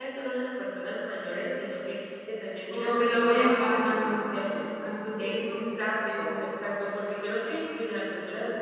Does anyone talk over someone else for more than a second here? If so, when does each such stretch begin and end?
2.7-4.2

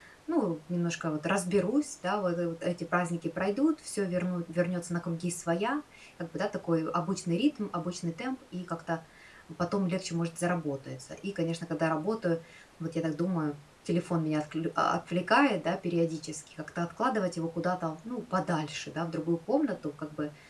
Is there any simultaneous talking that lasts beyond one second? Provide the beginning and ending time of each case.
none

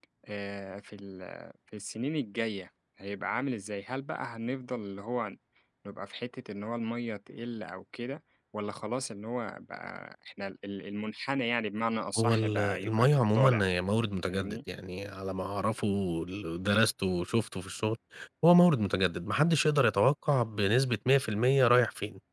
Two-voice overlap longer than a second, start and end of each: 12.2-13.6

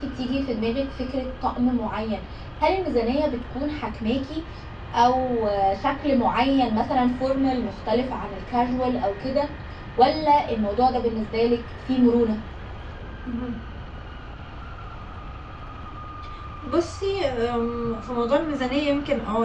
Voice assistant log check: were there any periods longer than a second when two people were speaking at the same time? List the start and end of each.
none

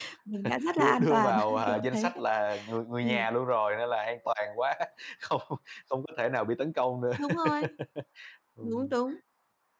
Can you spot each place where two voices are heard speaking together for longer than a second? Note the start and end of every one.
0.7-2.1

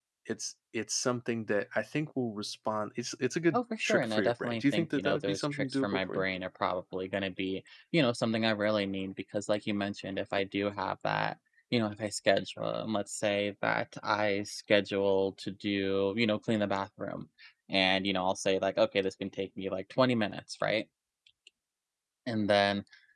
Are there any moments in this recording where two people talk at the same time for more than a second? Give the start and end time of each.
3.5-6.2

